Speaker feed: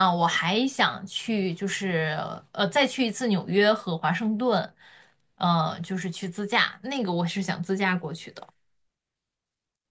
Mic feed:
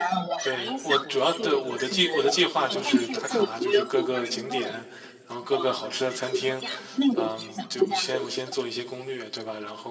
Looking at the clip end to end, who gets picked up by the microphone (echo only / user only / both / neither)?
both